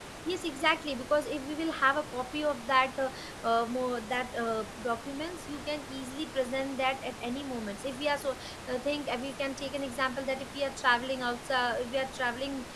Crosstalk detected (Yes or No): No